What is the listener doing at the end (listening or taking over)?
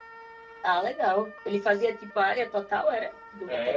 taking over